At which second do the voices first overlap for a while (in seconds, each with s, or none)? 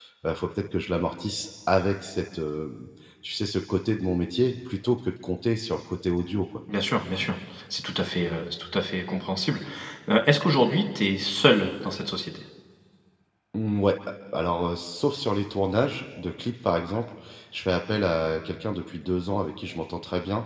none